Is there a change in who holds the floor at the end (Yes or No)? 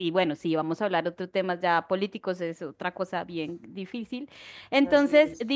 No